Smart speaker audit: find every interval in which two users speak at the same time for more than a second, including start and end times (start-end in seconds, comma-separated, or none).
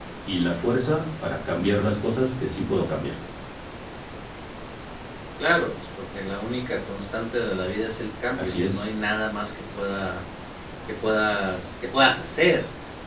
none